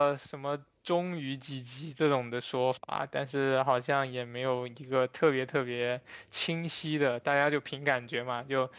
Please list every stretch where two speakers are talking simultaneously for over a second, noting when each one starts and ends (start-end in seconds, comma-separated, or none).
none